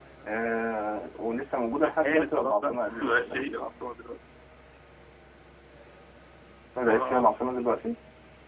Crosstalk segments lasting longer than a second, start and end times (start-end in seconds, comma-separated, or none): 1.8-3.5